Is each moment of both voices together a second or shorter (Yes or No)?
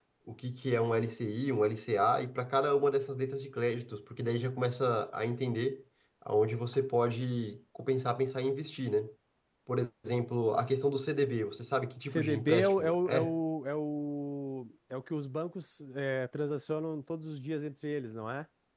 No